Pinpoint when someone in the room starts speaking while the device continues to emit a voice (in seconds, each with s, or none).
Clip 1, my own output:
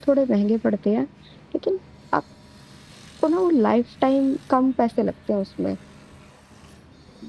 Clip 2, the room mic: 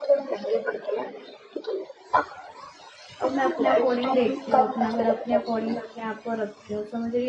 3.2 s